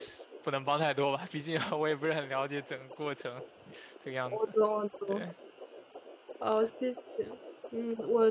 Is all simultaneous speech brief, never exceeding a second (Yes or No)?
Yes